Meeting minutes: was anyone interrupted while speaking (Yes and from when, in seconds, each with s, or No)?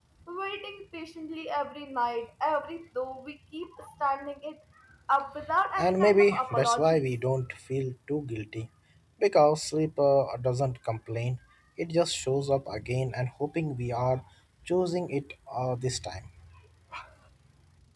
Yes, from 5.8 s